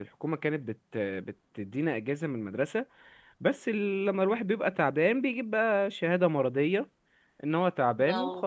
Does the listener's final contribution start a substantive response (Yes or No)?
No